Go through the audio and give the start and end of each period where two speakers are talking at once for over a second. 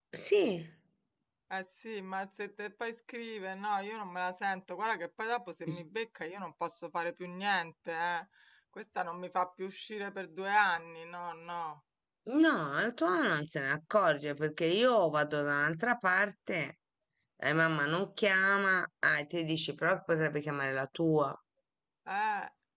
none

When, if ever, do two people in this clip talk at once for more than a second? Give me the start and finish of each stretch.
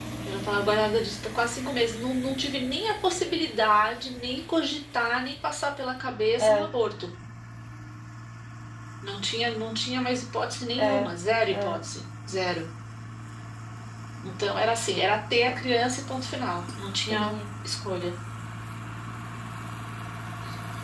none

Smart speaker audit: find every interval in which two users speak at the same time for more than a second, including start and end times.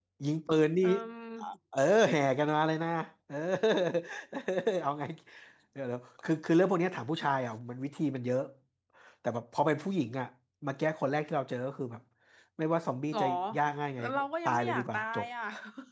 14.0-15.3

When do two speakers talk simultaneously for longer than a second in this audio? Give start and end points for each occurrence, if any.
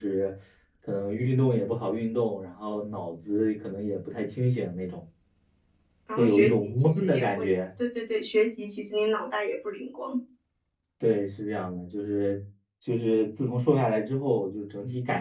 6.2-7.5

